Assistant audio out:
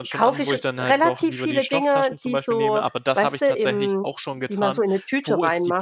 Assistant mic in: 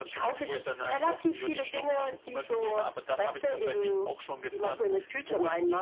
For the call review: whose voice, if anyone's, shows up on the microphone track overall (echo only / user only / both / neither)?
echo only